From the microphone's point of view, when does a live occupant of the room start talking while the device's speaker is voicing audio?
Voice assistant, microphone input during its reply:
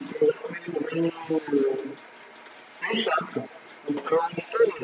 none

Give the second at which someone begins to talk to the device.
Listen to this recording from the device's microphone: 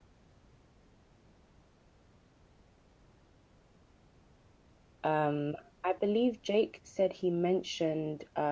5.0 s

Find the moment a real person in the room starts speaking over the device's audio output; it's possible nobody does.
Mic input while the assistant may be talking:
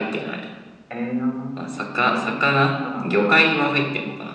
none

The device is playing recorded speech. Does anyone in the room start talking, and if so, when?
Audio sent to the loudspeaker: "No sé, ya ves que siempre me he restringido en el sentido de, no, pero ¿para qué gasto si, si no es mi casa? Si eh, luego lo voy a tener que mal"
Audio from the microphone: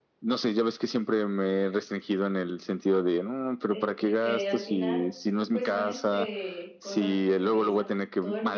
3.7 s

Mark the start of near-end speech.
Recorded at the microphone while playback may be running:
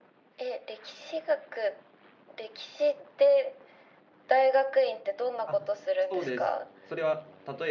5.4 s

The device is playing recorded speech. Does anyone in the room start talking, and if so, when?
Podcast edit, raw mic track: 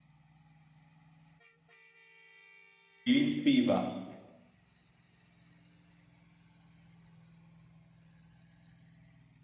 3.1 s

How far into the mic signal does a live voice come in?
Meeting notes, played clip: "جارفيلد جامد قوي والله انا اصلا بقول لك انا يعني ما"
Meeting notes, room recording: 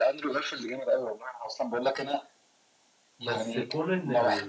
3.2 s

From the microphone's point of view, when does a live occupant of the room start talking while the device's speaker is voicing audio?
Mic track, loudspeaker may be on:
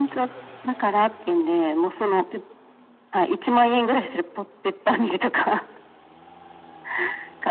none

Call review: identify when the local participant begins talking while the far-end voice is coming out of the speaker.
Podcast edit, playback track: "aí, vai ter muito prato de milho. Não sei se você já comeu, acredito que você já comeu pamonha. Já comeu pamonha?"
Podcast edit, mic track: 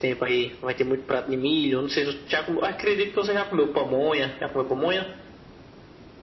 none

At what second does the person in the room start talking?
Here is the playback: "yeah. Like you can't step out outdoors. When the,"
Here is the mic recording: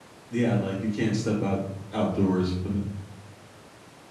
none

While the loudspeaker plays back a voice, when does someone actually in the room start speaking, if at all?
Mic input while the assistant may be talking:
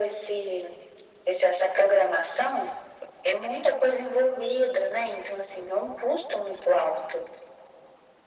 none

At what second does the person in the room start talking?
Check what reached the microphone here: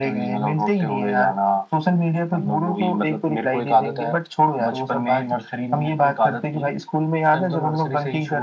none

